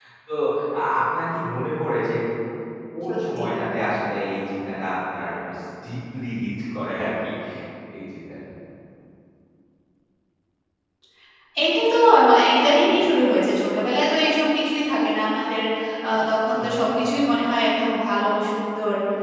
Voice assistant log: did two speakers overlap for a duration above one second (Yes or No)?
No